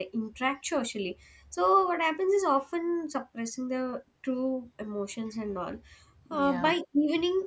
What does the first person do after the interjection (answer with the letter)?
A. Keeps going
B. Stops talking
A